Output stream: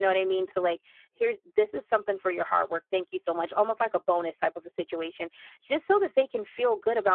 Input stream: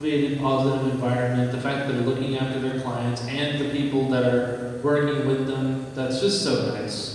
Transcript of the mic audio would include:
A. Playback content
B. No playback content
B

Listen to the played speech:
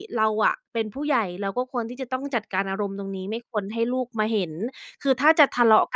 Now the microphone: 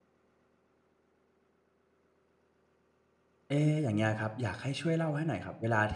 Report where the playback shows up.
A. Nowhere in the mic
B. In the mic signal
A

